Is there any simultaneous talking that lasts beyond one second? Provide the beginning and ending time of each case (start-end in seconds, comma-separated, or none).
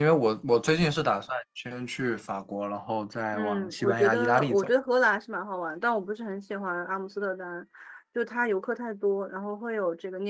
3.3-4.7